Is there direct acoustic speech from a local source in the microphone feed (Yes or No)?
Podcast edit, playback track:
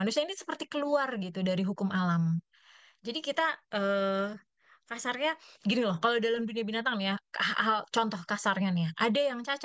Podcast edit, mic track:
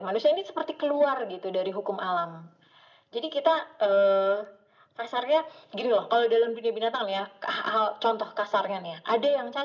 No